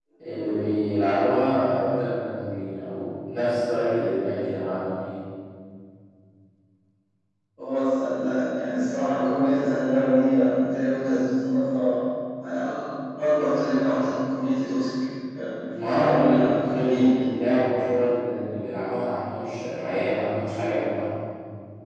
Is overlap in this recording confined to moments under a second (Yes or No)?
No